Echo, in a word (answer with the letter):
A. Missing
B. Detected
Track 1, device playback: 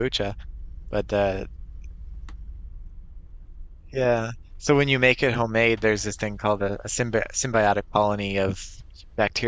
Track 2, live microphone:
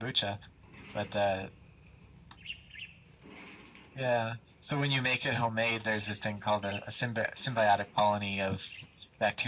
B